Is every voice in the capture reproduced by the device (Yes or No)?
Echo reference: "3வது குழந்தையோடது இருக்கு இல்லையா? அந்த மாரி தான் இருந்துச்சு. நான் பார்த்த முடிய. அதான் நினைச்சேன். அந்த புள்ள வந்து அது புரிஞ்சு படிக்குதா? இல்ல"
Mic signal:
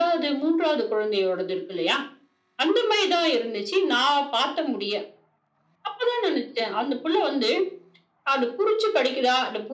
Yes